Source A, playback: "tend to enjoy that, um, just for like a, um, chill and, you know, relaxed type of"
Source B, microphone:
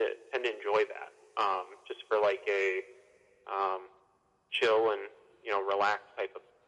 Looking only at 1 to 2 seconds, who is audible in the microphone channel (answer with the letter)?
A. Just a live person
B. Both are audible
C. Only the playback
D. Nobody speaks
C